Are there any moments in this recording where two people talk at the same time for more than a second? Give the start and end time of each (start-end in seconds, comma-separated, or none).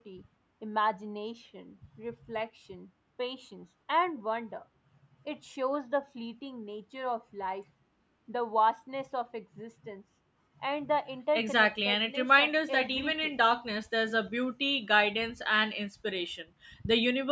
11.4-13.3